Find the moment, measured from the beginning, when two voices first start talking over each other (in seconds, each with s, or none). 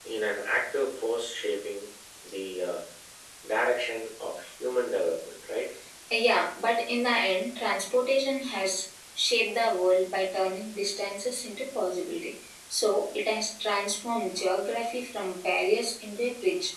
none